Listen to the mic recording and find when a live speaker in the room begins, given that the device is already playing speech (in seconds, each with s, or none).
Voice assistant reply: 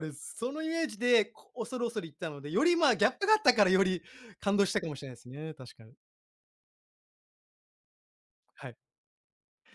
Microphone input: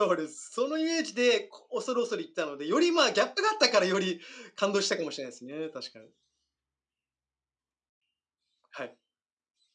none